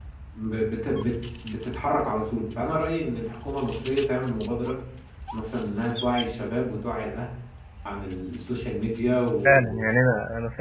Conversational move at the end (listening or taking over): taking over